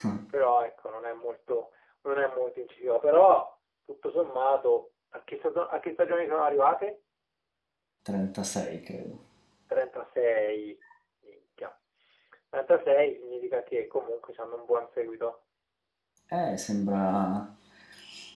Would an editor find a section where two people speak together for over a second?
No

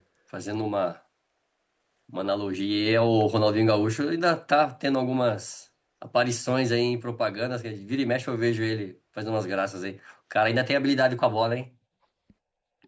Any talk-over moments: No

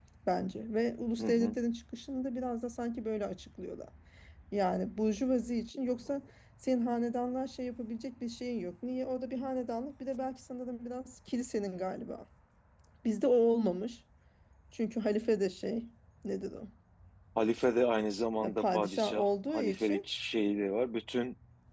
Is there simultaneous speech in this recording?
Yes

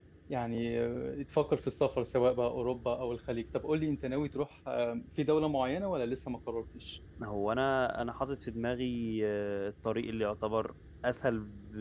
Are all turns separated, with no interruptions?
Yes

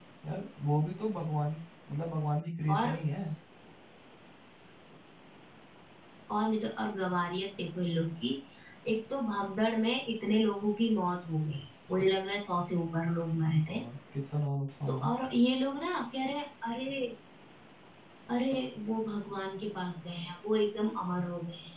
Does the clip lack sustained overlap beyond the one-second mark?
Yes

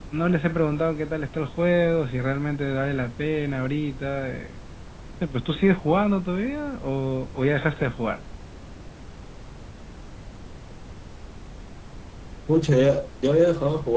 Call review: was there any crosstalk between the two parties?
No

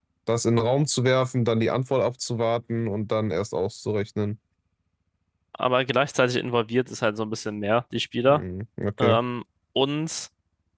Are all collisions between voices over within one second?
Yes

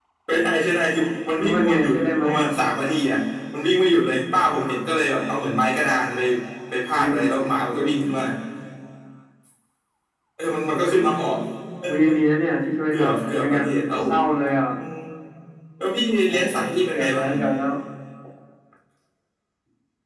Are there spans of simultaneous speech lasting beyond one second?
Yes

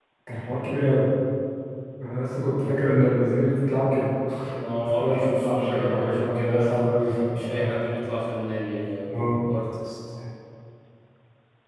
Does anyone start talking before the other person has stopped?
Yes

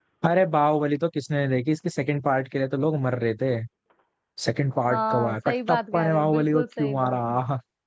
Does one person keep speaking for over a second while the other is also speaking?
Yes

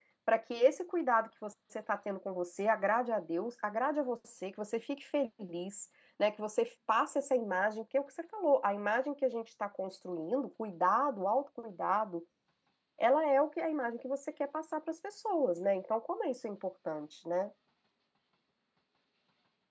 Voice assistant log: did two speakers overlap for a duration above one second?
No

